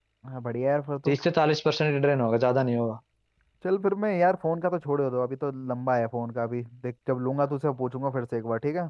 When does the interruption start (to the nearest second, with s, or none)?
none